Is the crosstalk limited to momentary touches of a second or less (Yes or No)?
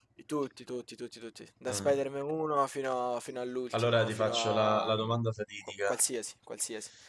No